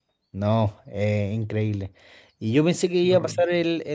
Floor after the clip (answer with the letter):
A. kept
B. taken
A